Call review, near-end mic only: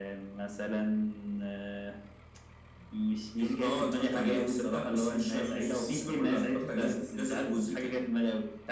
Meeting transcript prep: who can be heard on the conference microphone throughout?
echo only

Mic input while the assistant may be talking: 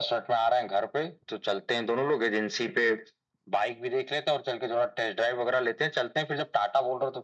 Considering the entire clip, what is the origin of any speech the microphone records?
echo only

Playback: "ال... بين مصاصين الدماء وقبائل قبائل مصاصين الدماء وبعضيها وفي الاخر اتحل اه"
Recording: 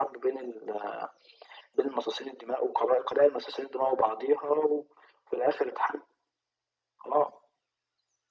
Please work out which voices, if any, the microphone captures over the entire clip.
echo only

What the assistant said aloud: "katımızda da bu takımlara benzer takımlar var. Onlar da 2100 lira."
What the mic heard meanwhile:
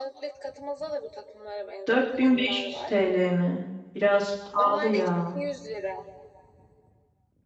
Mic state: both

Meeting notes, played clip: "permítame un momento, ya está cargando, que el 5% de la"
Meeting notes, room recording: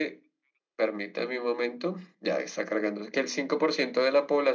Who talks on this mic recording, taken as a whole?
echo only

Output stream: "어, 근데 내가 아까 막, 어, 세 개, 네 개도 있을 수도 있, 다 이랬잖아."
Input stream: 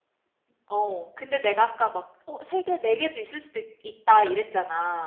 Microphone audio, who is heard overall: echo only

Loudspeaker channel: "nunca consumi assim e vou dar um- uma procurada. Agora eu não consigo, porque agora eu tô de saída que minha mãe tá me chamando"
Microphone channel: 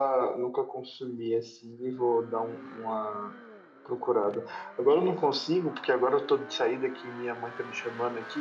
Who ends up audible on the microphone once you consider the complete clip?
echo only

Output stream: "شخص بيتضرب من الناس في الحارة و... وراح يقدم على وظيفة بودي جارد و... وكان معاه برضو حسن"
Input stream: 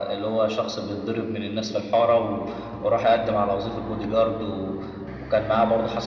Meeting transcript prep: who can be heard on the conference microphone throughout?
echo only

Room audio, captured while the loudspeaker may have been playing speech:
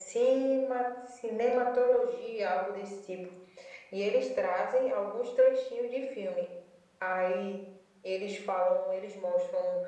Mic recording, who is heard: echo only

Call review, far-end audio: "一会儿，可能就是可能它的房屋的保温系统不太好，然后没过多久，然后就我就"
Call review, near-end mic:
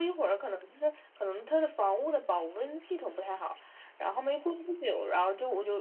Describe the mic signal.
echo only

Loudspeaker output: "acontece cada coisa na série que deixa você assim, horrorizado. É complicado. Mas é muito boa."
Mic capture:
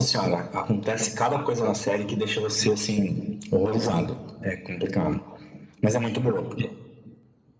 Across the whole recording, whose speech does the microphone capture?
echo only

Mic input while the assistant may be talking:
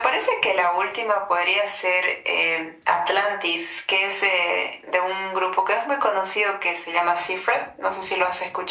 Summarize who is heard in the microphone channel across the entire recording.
echo only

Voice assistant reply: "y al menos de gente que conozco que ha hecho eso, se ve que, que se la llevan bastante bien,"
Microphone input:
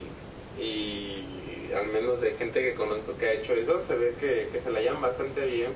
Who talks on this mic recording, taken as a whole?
echo only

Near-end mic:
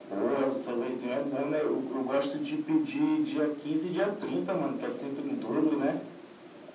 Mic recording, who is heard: both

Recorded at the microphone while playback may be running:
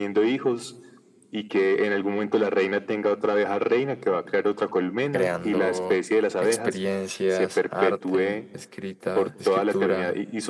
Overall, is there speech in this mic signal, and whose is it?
both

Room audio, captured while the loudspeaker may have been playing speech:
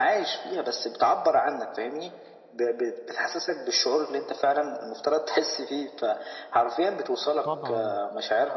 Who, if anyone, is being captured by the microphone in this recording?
both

